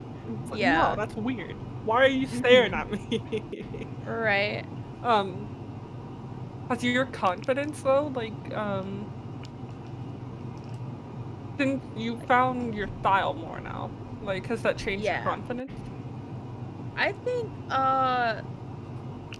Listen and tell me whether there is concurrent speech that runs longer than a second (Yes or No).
No